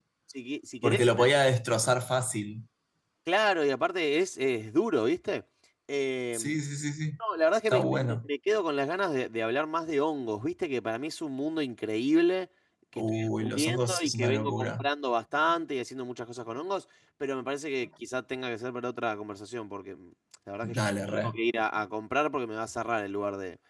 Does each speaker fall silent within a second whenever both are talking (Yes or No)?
No